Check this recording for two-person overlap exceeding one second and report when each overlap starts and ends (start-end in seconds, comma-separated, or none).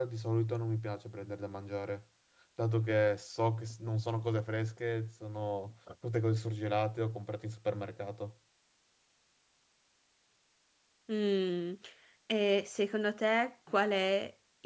none